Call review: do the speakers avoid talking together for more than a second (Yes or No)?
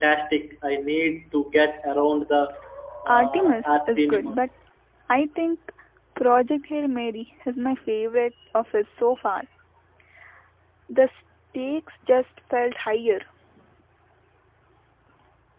No